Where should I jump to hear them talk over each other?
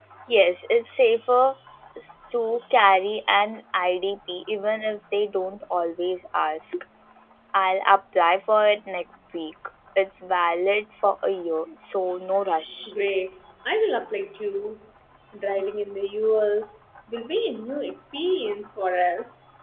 none

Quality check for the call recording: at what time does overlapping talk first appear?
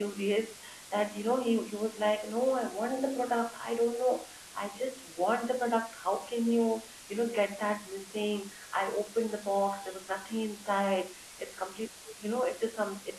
none

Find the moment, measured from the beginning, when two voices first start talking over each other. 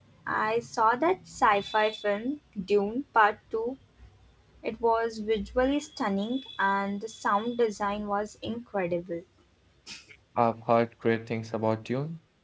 none

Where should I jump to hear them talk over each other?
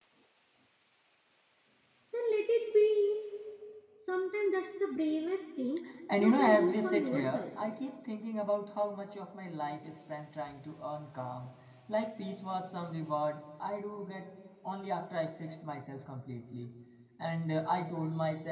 6.2 s

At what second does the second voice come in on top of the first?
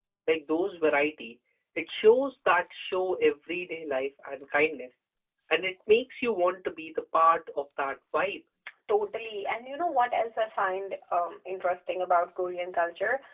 none

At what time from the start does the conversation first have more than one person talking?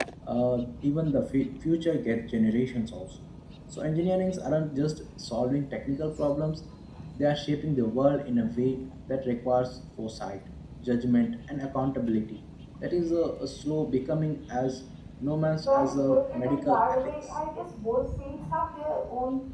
15.7 s

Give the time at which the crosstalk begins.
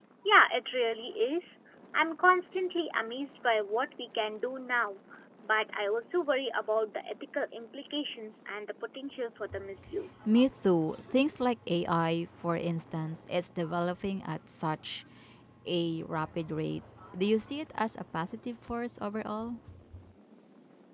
none

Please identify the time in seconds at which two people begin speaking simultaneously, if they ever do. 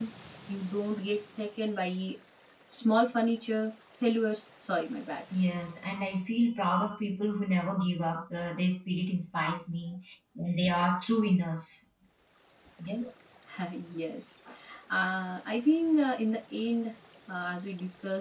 none

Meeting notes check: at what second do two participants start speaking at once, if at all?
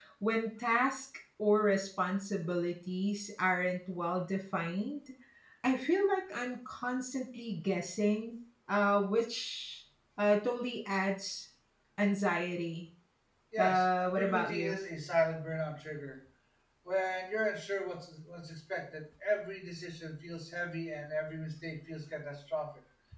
13.6 s

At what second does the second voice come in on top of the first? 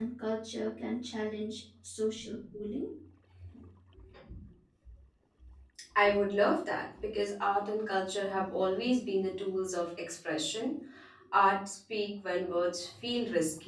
none

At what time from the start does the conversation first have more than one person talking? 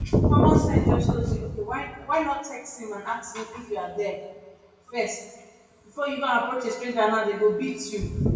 none

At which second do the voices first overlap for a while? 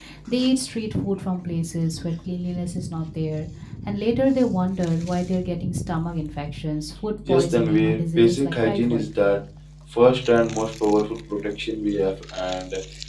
7.2 s

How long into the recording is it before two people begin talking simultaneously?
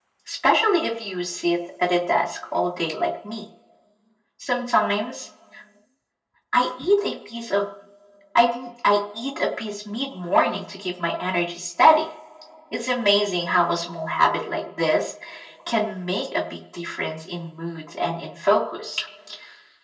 none

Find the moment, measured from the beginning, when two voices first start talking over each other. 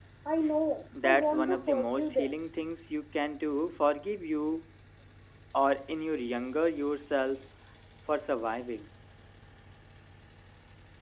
1.0 s

